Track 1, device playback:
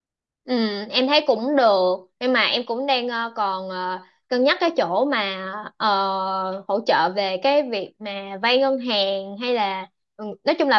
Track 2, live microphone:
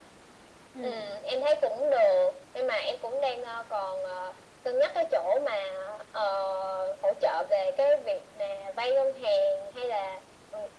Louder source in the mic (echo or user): echo